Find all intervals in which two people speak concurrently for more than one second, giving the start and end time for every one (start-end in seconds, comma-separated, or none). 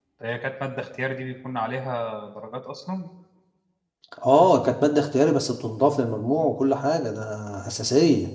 none